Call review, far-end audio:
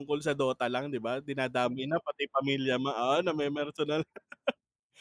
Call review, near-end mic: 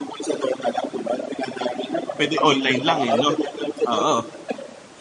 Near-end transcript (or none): Pwede online lang eh, 'no? Oo.